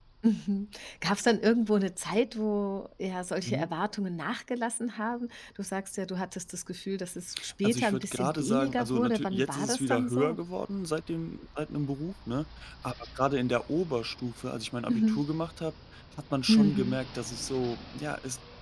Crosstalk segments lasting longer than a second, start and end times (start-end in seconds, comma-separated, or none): 7.6-10.4